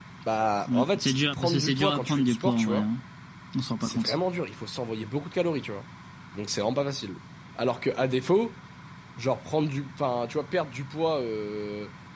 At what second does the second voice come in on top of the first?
0.7 s

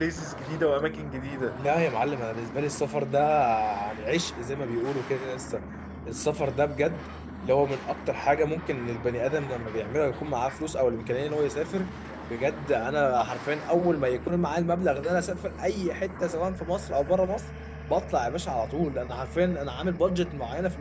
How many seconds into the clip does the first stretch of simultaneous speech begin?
none

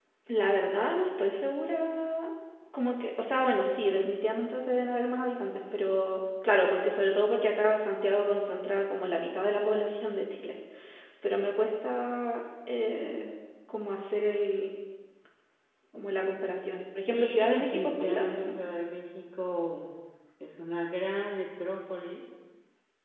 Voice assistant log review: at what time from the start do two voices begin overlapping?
17.1 s

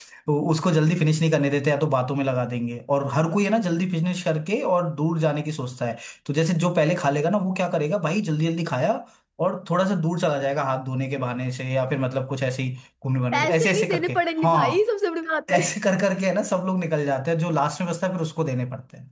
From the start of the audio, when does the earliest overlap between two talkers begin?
13.3 s

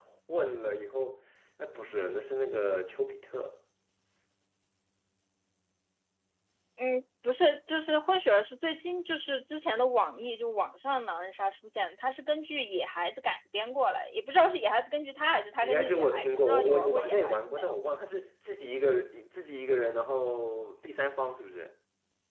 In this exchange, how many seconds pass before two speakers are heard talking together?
15.6 s

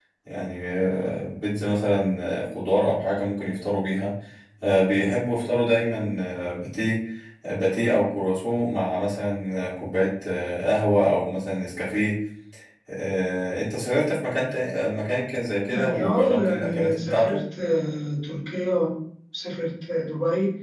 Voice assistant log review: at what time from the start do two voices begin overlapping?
15.7 s

